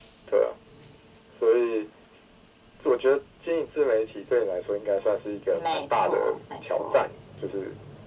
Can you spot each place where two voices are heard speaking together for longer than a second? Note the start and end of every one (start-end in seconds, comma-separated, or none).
5.5-7.1